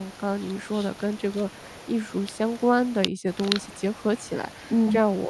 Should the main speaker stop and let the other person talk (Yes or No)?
No